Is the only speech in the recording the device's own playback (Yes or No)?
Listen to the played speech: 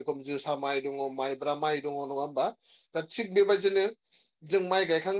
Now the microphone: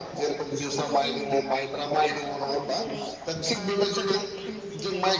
No